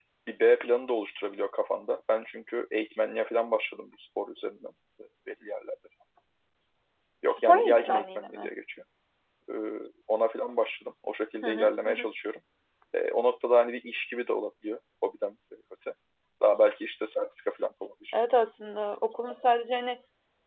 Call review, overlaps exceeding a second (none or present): present